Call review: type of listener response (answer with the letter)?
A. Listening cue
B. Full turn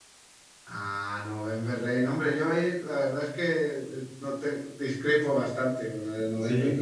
A